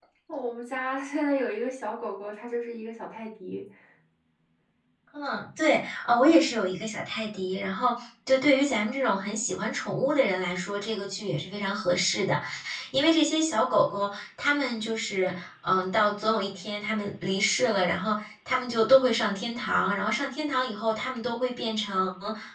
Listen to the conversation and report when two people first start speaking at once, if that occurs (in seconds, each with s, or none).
none